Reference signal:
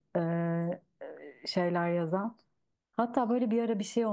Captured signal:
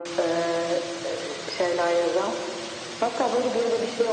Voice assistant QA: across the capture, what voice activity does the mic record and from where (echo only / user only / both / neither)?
echo only